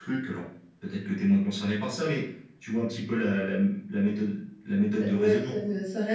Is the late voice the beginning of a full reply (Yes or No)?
Yes